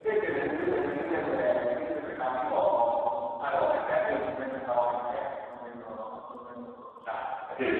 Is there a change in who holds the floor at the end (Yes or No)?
Yes